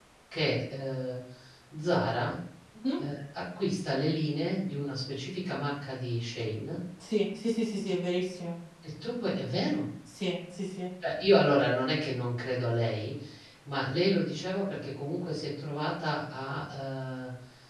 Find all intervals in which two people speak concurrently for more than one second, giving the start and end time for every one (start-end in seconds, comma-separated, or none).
none